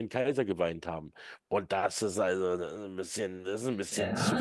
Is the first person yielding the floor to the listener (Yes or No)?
Yes